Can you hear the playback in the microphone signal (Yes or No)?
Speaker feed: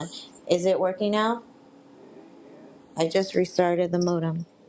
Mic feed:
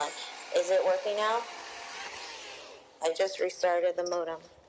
Yes